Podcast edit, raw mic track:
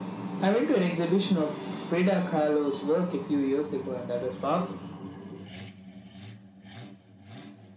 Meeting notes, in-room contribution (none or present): none